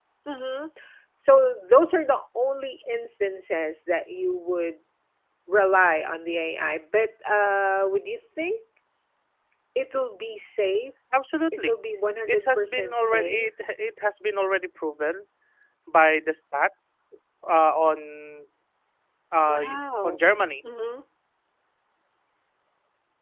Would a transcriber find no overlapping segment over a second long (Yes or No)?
No